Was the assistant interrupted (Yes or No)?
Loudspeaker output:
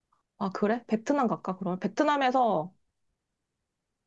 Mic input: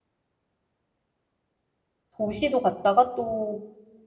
Yes